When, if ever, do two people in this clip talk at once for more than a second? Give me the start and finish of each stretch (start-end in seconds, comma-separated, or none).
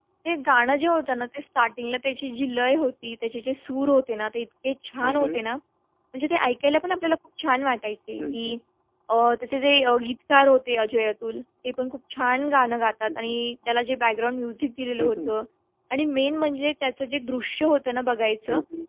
none